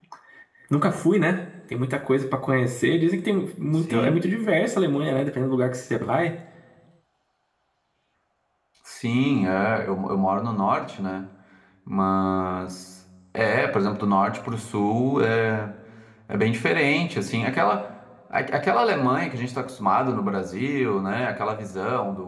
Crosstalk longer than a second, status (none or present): none